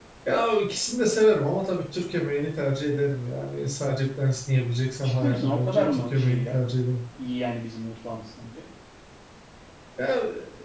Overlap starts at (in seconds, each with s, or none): 5.0 s